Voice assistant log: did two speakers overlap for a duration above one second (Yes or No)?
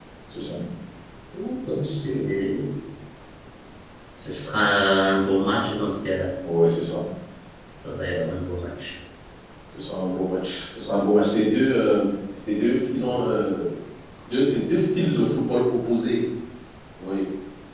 No